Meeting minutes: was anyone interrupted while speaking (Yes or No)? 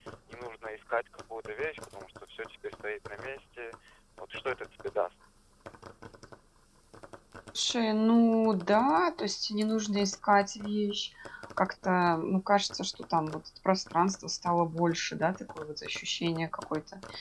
No